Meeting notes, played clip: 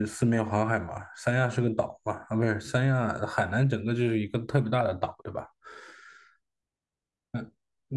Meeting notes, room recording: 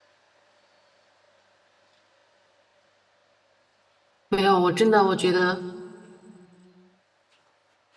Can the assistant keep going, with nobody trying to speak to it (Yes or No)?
No